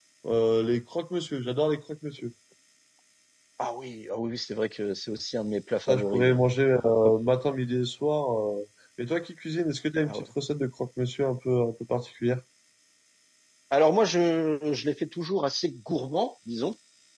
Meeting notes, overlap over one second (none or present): none